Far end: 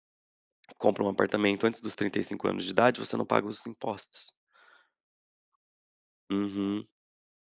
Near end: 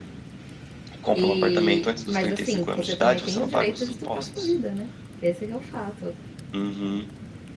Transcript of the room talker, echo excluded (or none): e, mas assim, você também tem o direito de tocar sua vida, né. Esse que é o fato,